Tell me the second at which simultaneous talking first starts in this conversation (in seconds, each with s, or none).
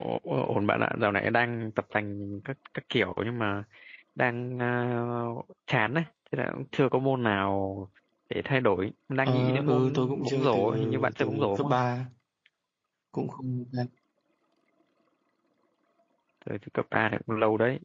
9.2 s